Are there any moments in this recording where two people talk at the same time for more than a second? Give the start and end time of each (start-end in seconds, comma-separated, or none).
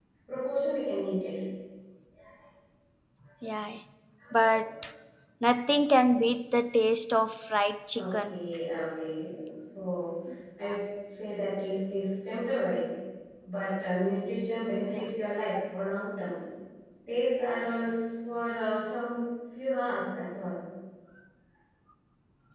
none